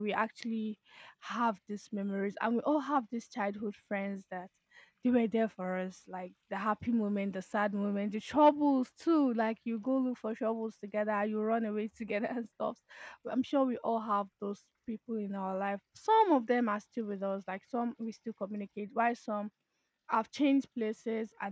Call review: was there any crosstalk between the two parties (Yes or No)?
No